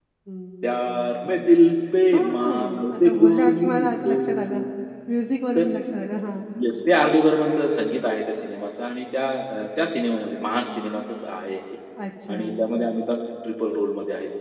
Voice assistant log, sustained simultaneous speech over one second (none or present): present